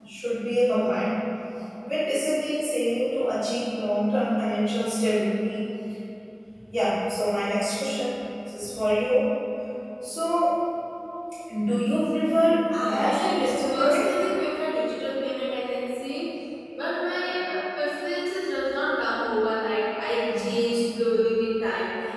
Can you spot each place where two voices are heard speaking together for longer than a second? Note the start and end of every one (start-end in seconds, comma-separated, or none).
12.8-14.1